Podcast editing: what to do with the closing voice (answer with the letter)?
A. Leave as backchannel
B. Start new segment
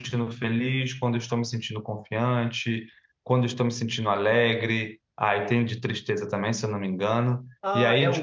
B